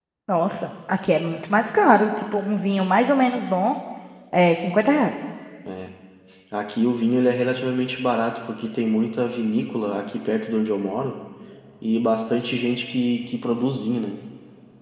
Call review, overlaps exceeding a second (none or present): none